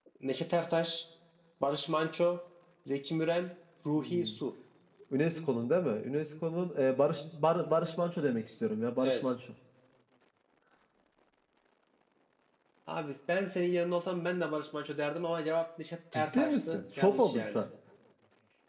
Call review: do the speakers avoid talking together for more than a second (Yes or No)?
No